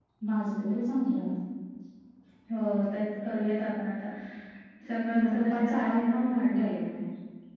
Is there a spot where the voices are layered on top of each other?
Yes, from 5.1 s

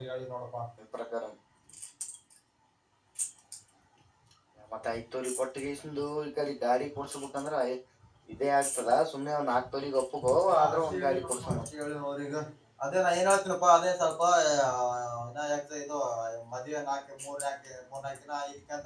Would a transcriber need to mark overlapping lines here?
Yes, from 10.5 s

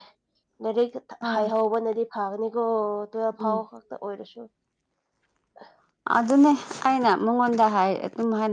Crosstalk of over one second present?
No

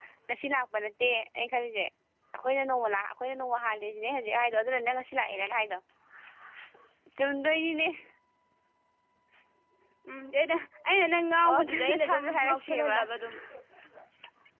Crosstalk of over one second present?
Yes, from 11.4 s

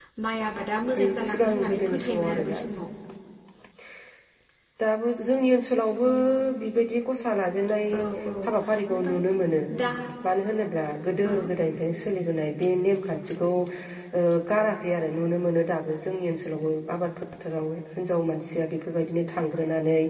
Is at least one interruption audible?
Yes, from 1.0 s

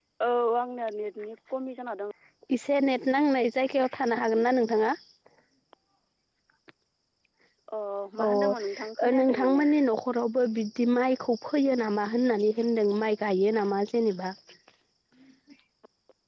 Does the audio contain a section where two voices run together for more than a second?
Yes, from 8.2 s

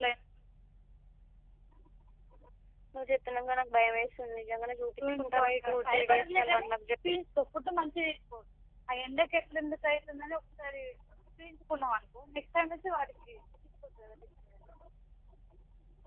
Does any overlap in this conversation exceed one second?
Yes, from 5.4 s

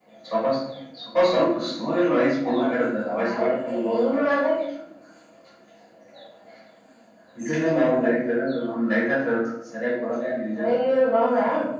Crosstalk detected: Yes, from 2.8 s

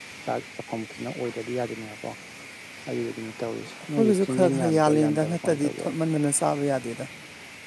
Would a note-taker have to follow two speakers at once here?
Yes, from 4.0 s

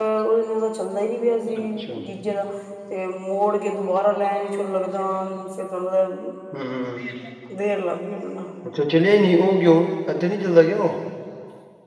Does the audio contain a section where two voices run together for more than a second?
No

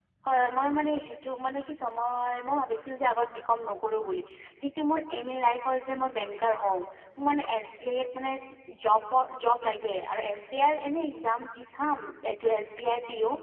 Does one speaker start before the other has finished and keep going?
No

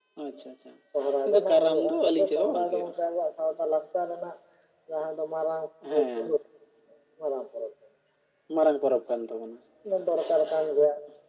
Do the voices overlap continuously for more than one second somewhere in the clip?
Yes, from 1.3 s

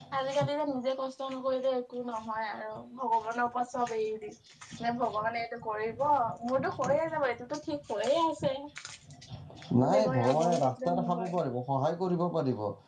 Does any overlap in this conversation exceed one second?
Yes, from 9.8 s

